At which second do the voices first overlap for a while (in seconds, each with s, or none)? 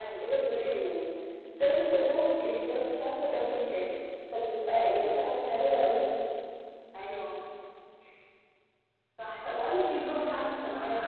none